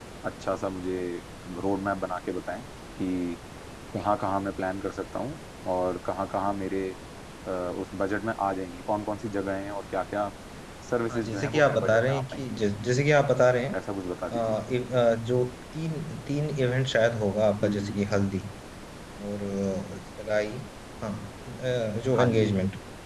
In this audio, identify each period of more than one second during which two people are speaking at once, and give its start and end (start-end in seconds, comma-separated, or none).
11.1-12.4